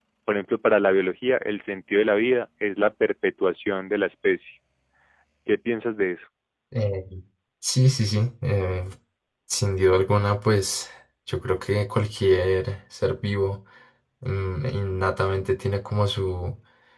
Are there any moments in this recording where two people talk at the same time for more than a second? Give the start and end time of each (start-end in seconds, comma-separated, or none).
none